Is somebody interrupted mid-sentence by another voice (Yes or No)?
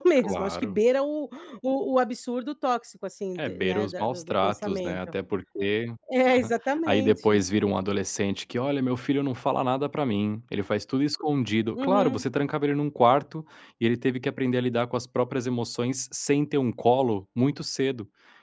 Yes